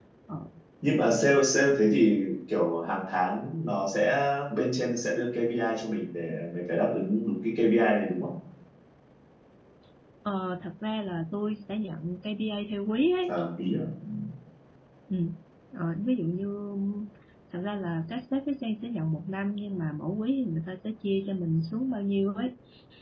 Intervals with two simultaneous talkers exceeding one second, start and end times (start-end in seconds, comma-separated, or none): none